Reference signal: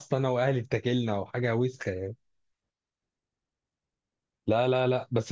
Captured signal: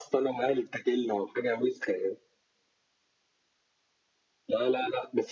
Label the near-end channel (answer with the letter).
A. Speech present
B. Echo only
B